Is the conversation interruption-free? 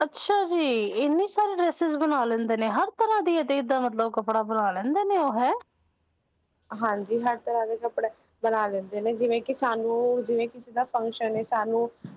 Yes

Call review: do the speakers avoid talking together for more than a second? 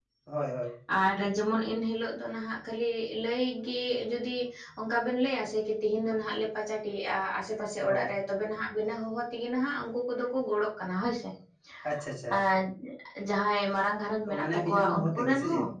No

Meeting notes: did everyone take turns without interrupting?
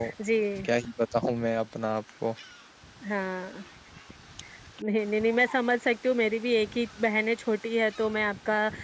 Yes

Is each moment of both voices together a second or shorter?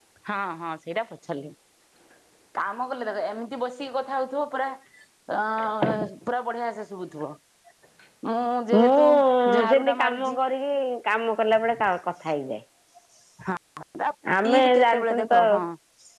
No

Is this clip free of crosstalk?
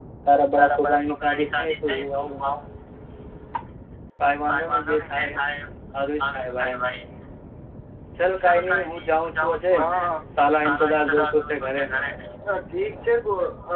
No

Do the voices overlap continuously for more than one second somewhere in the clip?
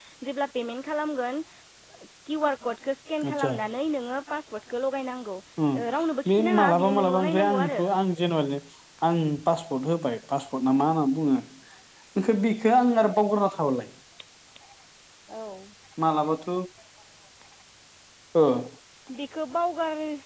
Yes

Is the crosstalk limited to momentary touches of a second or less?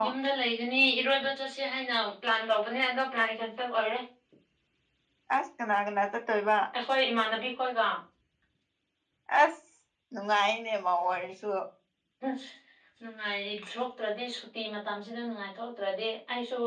Yes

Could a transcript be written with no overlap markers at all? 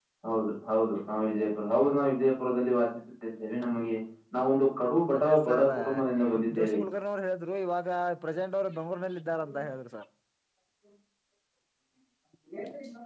No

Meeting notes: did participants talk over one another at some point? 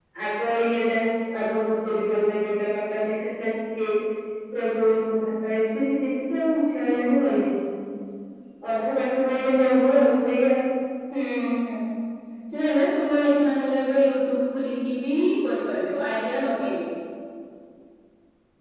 No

